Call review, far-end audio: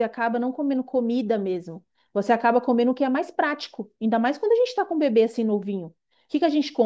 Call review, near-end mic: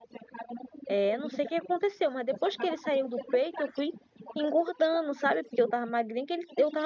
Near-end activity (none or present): present